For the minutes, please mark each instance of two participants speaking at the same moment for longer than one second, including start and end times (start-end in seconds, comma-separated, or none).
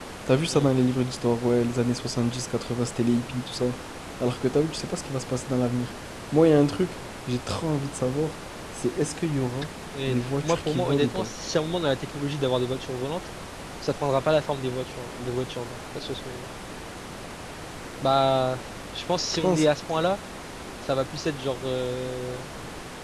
10.1-11.3